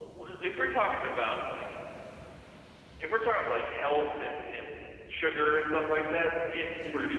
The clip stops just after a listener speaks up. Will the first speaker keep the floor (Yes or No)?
No